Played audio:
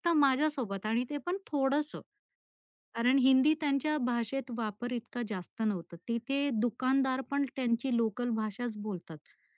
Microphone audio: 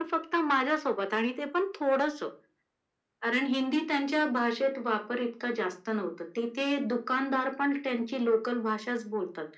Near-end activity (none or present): none